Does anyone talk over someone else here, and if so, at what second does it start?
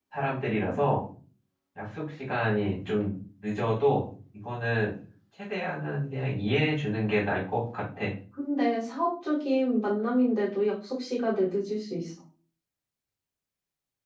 none

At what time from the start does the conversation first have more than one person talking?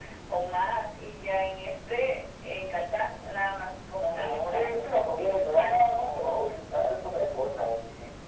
4.1 s

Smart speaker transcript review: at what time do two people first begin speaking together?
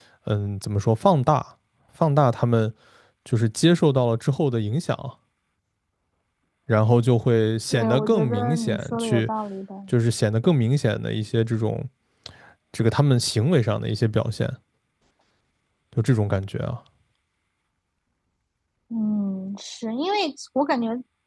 7.7 s

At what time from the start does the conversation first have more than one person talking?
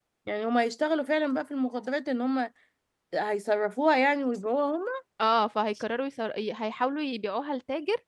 none

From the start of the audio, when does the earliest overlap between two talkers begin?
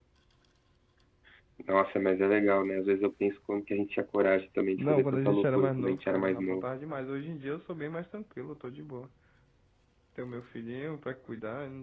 4.8 s

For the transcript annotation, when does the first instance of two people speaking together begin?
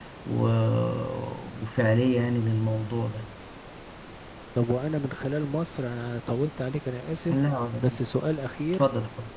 none

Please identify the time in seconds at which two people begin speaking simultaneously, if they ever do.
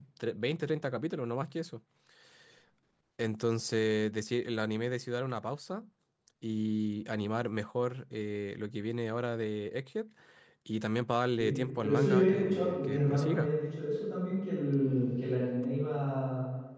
11.4 s

